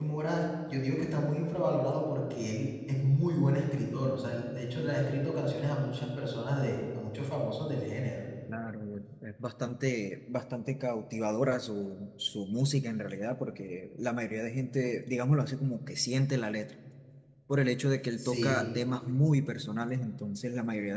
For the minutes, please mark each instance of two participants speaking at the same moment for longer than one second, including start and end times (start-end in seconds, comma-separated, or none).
none